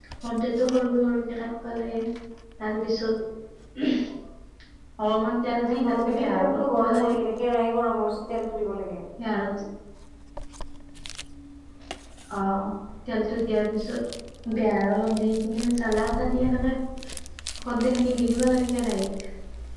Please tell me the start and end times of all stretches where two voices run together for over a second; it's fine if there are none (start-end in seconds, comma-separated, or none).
5.6-7.2